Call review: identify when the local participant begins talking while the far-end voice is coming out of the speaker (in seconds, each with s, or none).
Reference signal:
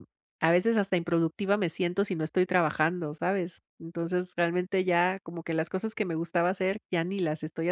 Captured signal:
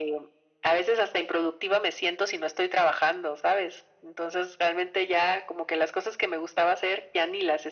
none